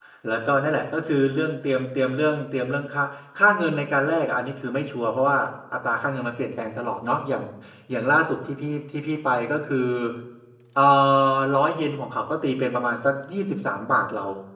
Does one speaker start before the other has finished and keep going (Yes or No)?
No